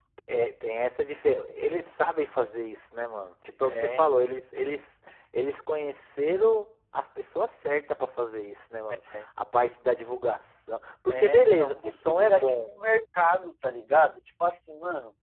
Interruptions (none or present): present